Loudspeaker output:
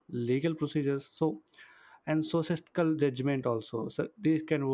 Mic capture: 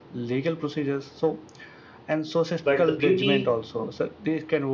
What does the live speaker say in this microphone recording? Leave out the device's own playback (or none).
but the beauty